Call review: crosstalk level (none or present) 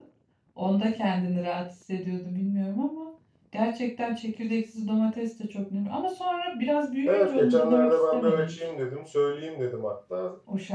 present